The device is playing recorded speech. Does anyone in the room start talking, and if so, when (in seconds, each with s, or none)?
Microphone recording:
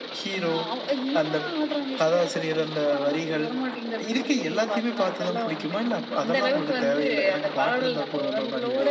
none